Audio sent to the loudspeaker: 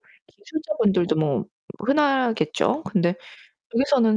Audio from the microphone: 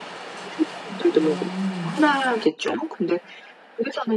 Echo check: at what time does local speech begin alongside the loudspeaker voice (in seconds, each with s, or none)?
1.2 s